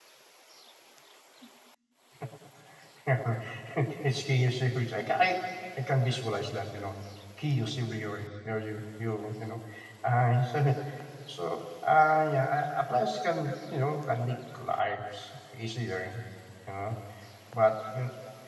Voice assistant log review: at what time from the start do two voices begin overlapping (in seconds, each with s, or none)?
none